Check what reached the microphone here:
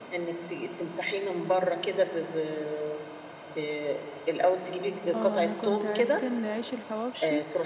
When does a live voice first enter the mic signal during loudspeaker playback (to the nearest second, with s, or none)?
5 s